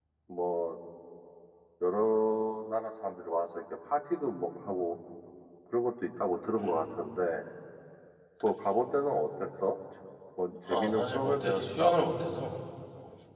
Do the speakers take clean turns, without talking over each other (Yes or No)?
No